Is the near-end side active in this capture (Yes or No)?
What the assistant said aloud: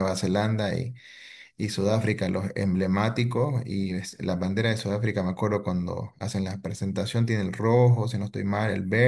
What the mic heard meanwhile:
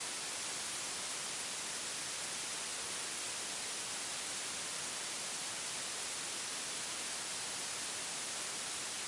No